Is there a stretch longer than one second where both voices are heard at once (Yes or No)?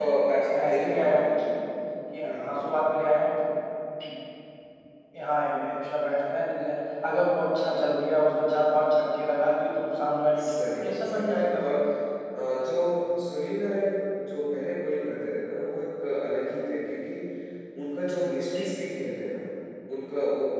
Yes